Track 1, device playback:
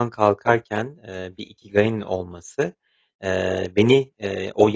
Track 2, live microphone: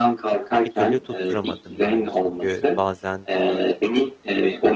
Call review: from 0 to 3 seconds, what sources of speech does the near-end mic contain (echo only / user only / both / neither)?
both